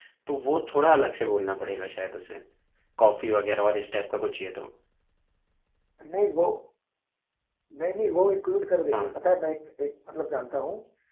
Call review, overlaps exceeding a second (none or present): none